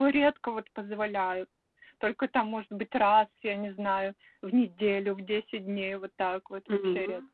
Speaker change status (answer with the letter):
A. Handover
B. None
A